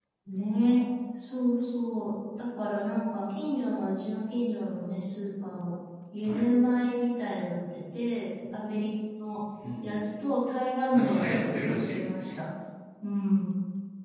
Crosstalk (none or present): present